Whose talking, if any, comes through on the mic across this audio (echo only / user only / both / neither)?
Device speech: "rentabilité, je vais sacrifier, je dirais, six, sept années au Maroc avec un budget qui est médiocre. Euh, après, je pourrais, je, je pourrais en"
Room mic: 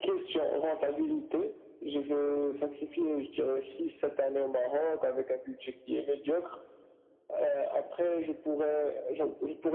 echo only